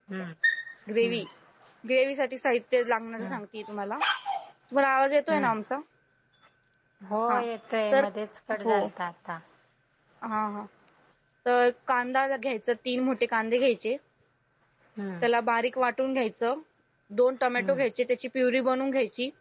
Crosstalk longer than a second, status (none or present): none